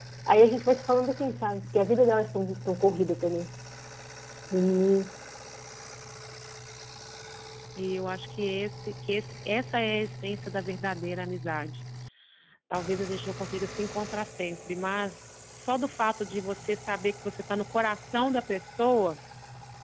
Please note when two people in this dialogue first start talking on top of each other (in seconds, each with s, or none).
none